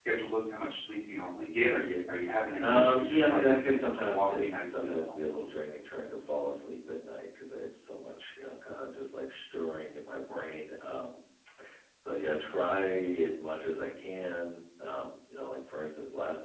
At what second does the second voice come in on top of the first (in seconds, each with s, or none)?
2.6 s